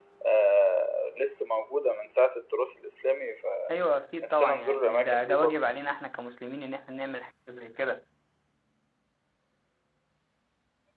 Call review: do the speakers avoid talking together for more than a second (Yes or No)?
No